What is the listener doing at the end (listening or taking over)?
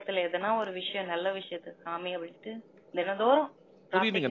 taking over